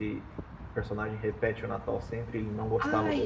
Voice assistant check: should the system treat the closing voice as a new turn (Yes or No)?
Yes